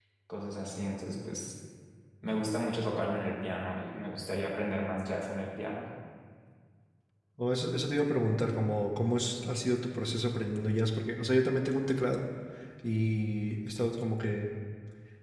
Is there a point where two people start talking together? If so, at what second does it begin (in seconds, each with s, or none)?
none